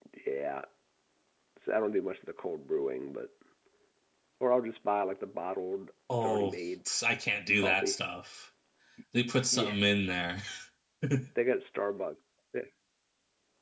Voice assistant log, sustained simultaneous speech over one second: none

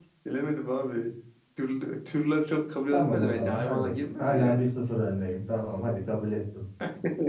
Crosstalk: present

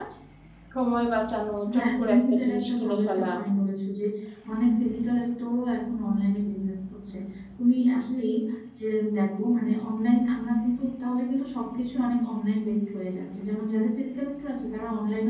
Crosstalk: present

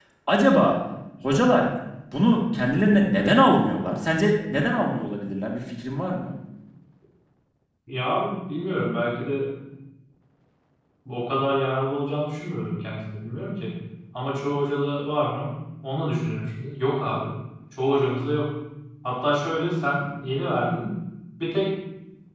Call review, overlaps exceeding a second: none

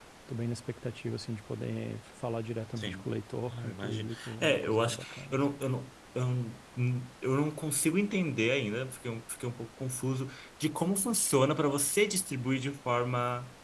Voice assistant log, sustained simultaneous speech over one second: present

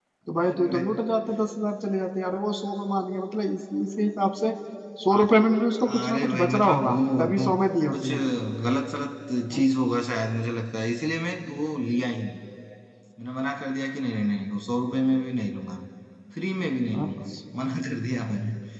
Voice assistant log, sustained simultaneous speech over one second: present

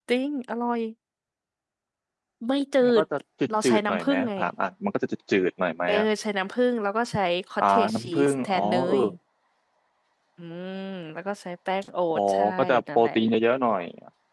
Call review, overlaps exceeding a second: present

